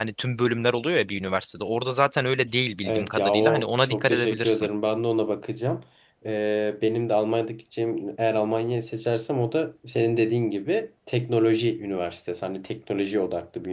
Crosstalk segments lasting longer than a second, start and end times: 2.8-4.7

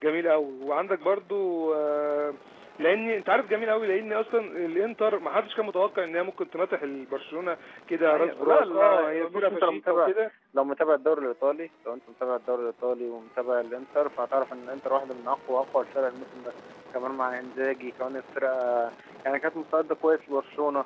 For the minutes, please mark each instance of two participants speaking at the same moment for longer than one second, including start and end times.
8.1-10.1

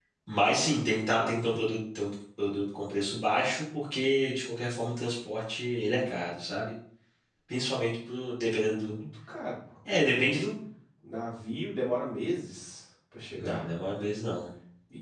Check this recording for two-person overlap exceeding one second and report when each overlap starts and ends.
none

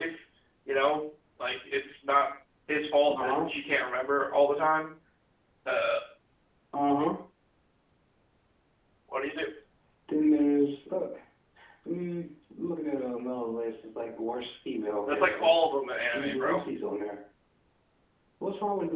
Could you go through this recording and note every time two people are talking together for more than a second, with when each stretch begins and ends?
none

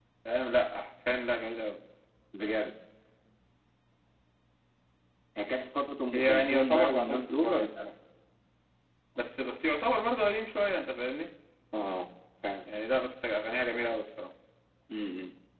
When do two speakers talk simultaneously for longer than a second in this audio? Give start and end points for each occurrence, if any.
6.1-7.8

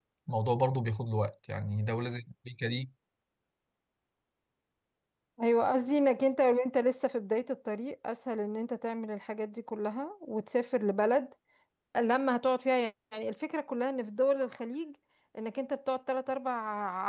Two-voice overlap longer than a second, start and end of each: none

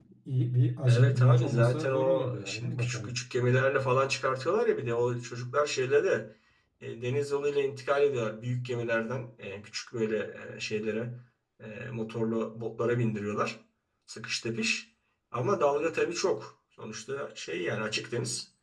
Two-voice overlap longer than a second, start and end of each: 0.9-3.1

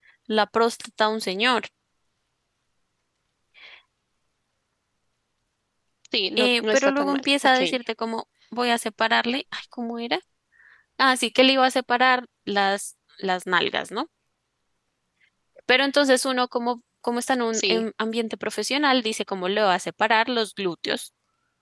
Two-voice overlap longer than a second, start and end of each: 6.4-7.6

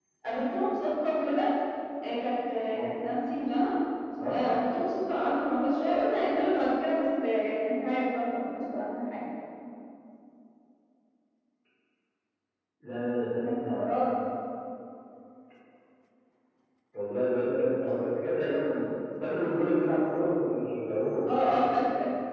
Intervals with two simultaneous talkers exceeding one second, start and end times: none

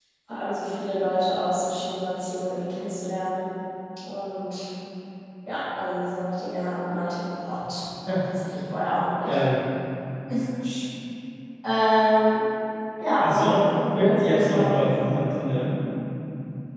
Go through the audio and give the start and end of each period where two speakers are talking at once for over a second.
13.2-14.8

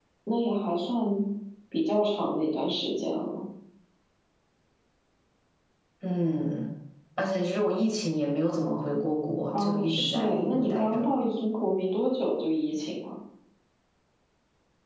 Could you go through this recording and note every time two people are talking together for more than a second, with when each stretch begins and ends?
9.5-11.1

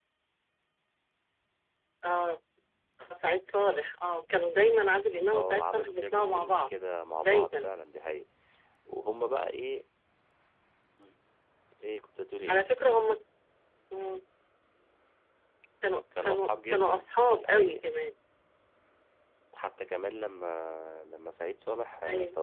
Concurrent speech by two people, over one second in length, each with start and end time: 5.3-6.7, 16.2-17.9

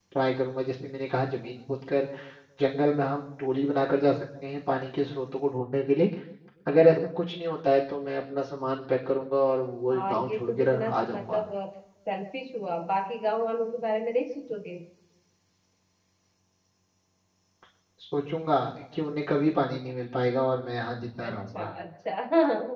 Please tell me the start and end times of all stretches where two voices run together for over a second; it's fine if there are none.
9.9-11.4

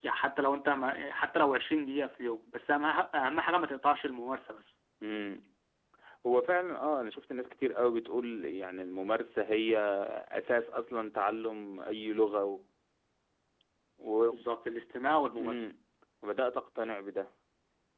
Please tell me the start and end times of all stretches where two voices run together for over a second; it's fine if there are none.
none

